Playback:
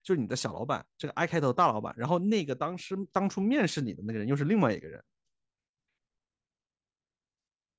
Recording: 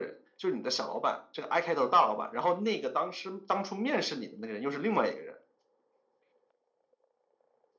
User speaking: No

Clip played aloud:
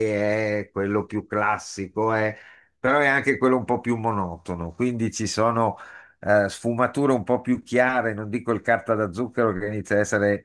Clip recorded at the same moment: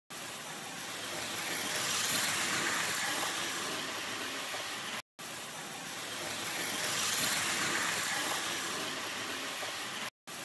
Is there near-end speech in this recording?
No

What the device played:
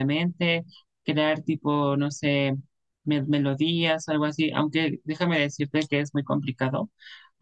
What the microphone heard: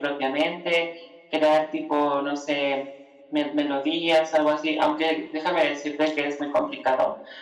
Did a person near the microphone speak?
No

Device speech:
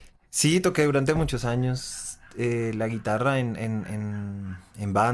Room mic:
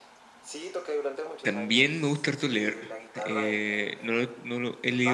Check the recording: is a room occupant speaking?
Yes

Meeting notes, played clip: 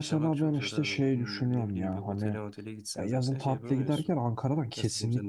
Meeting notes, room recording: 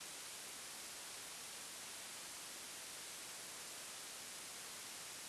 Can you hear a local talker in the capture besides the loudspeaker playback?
No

